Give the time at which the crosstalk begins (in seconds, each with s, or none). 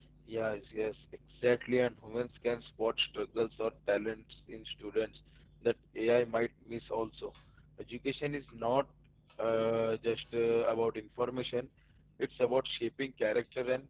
none